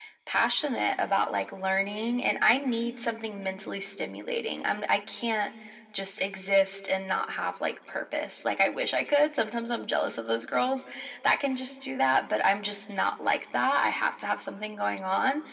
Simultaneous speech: No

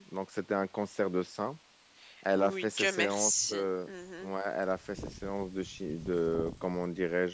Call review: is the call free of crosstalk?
No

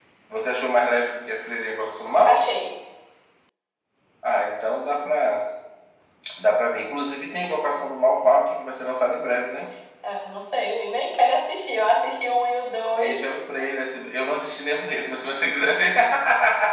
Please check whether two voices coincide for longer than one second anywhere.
No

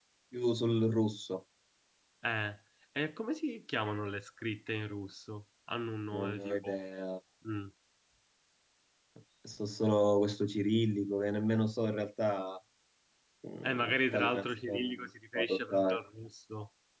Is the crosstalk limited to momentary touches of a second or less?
No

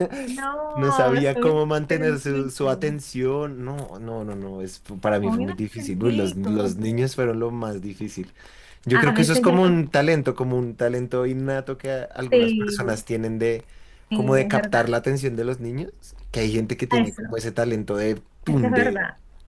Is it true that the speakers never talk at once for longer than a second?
No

